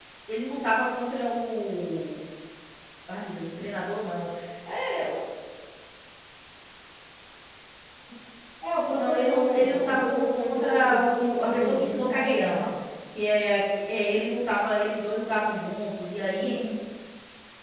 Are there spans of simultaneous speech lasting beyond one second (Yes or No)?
Yes